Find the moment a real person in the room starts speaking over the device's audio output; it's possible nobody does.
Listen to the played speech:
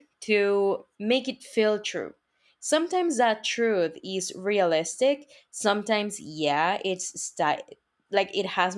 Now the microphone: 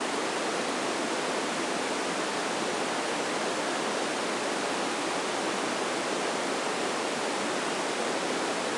none

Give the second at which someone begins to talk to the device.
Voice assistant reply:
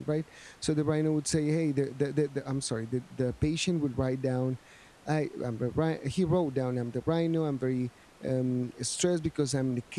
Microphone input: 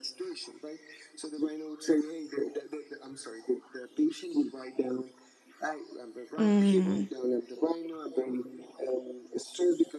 6.4 s

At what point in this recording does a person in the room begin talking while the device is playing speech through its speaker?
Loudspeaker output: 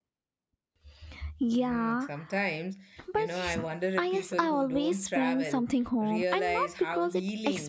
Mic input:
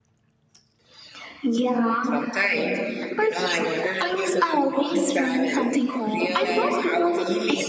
none

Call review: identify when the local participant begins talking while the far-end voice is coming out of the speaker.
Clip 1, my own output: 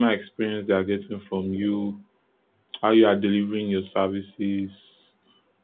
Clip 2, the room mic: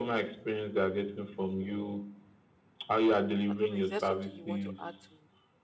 3.4 s

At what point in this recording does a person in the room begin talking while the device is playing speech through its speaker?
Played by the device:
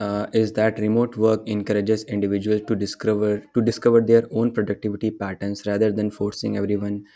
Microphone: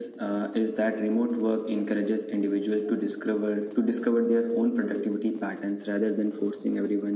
none

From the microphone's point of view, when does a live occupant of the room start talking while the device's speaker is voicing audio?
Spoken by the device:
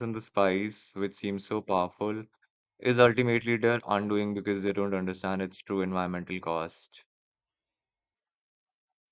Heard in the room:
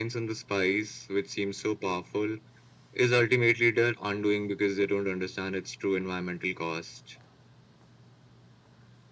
none

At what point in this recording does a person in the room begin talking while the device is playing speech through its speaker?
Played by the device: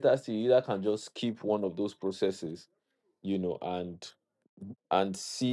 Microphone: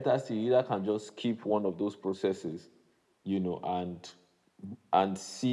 none

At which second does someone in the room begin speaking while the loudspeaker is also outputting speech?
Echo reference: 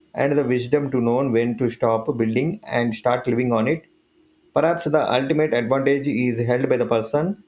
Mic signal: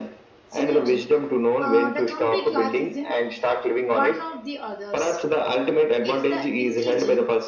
0.5 s

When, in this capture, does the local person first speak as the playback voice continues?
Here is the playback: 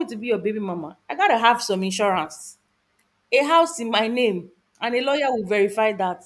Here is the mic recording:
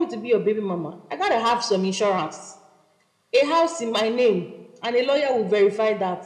none

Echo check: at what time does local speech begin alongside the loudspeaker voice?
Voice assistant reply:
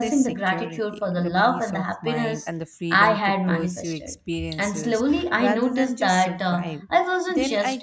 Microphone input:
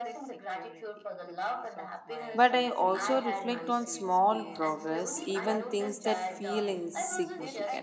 2.3 s

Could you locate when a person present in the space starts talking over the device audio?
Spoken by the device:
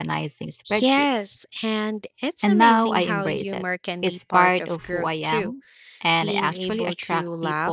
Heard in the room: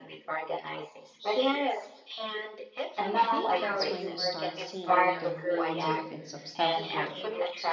3.0 s

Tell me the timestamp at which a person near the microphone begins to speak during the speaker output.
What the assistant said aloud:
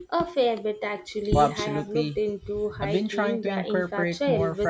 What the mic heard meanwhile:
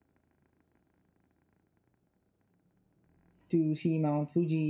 3.5 s

